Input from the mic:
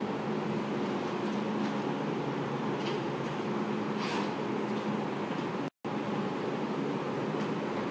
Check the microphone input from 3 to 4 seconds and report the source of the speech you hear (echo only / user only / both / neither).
neither